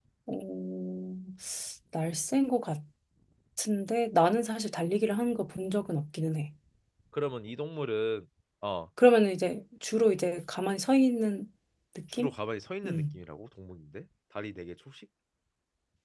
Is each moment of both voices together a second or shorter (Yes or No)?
Yes